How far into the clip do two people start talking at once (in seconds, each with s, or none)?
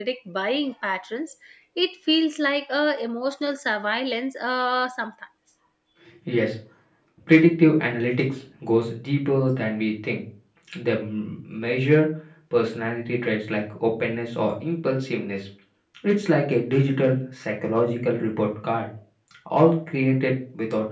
none